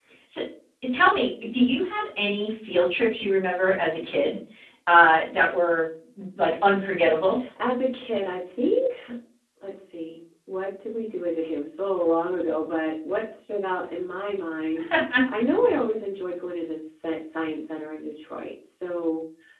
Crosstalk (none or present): none